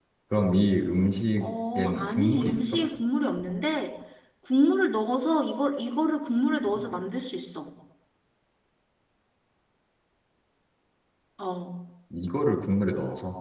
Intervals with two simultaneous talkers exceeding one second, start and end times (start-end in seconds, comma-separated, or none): 1.4-2.8